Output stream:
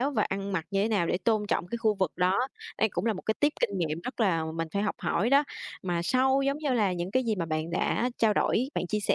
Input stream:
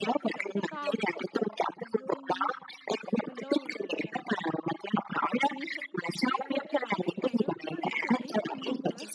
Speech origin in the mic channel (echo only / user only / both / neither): both